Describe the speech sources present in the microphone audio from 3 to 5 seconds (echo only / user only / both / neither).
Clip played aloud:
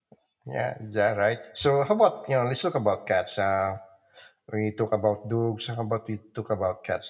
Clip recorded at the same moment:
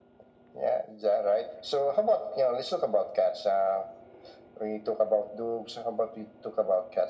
echo only